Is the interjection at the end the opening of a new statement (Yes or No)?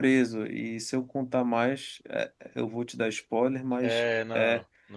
Yes